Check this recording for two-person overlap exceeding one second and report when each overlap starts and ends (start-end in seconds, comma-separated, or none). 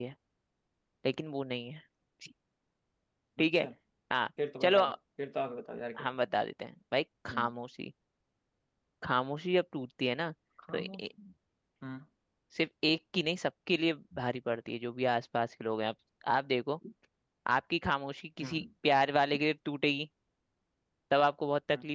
none